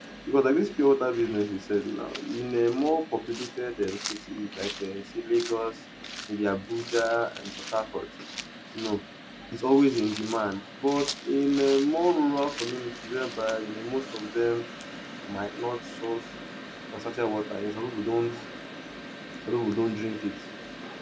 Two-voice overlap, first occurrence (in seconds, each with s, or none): none